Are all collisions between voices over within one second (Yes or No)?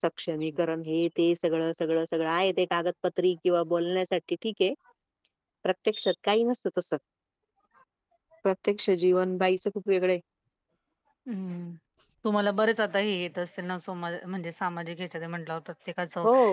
Yes